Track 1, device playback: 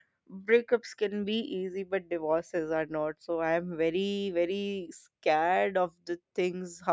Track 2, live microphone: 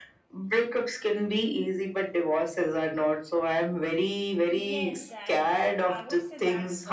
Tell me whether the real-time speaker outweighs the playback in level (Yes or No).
No